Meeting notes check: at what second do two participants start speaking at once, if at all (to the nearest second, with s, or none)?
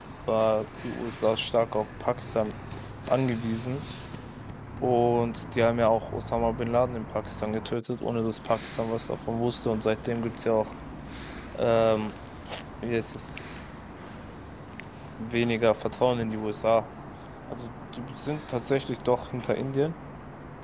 none